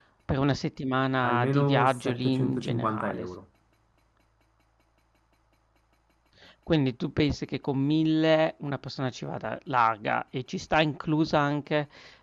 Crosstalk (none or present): present